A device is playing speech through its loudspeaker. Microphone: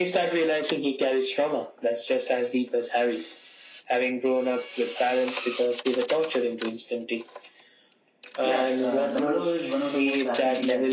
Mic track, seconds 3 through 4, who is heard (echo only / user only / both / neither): echo only